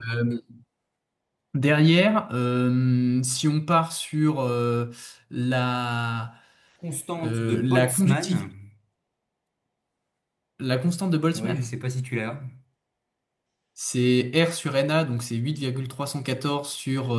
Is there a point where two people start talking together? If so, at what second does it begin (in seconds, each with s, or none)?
7.2 s